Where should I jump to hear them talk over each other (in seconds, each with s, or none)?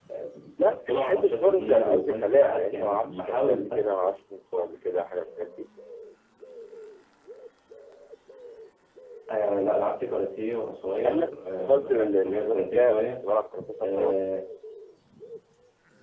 0.6 s